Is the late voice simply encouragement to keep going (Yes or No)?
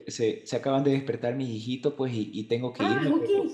Yes